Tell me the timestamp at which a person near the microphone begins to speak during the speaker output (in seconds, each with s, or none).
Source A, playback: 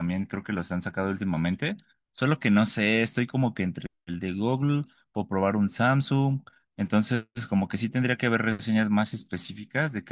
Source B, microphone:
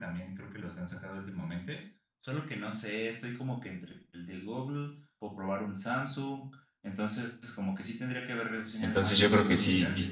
8.8 s